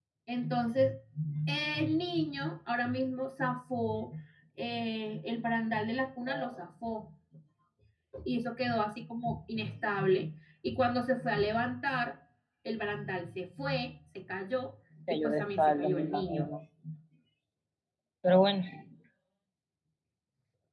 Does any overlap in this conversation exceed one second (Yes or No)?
Yes